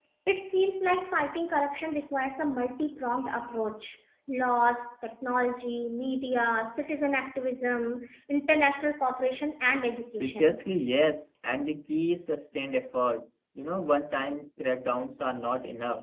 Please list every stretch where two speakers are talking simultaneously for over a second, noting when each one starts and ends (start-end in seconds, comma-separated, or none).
none